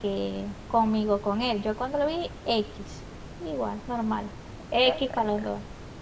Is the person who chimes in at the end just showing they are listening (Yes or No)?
Yes